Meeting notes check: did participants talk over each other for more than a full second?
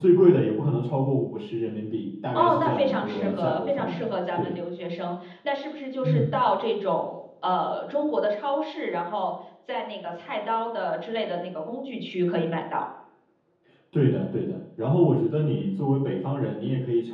Yes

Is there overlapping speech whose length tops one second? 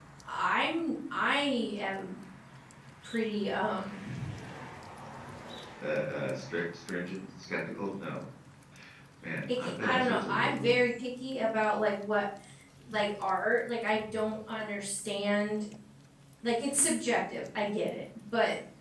Yes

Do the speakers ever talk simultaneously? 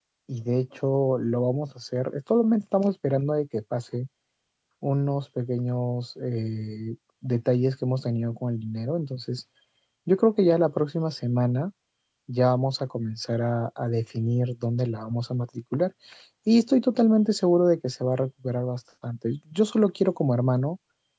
No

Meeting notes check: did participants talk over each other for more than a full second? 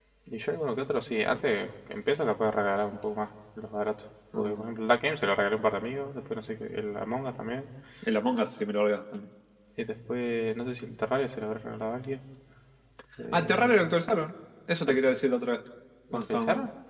No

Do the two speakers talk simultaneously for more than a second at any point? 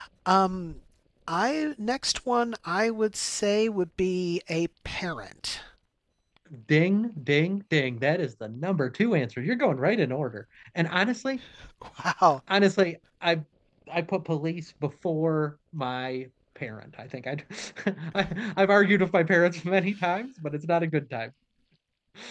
No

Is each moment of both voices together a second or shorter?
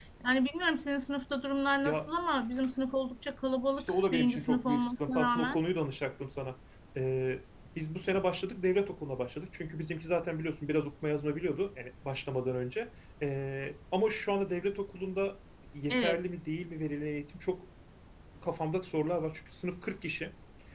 No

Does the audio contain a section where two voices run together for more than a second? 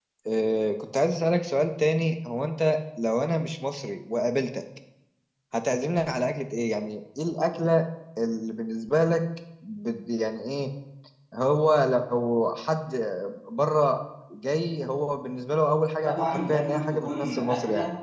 Yes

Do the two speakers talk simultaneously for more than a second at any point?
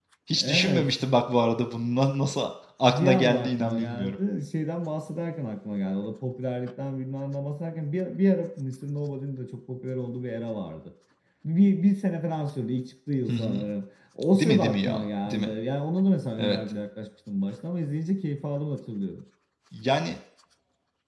Yes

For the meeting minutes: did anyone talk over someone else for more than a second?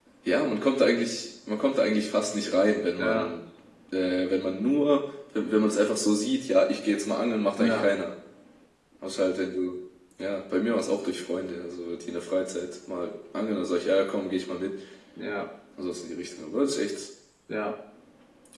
No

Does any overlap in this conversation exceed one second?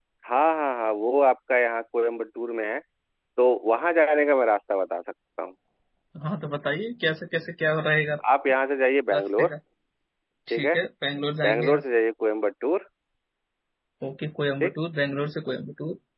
No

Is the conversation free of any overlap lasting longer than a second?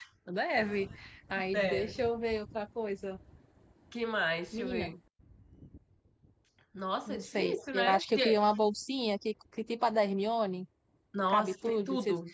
No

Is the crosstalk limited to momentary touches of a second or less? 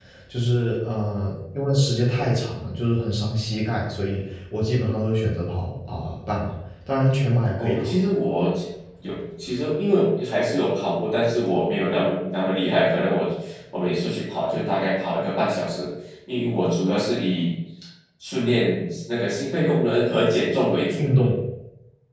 Yes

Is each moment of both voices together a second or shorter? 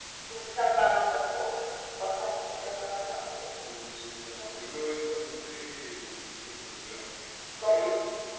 Yes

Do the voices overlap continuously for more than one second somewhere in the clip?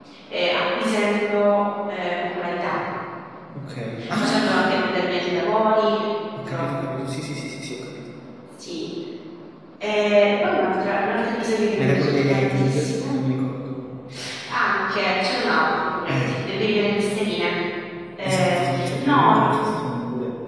Yes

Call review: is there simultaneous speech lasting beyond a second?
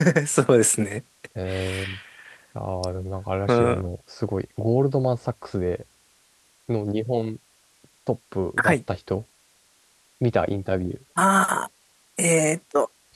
No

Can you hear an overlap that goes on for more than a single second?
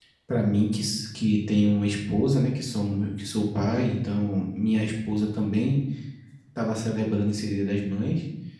No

